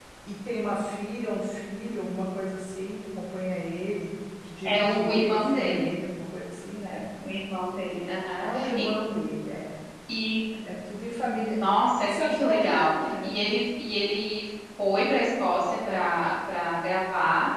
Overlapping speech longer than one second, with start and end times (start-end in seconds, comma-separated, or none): 4.6-5.9, 12.1-13.5